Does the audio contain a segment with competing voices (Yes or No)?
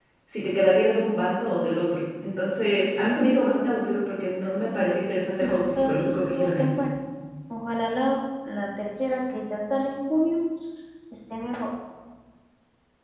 Yes